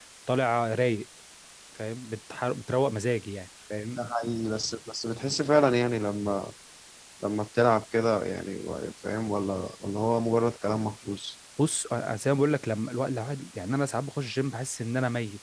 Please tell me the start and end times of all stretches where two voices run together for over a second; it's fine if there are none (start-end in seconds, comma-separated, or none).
none